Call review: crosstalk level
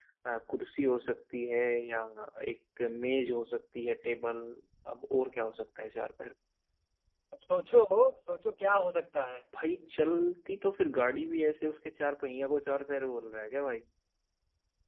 none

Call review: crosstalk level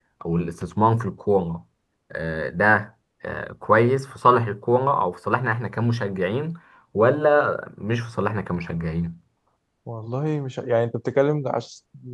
none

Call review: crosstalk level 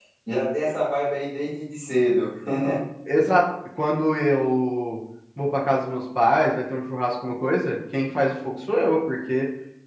none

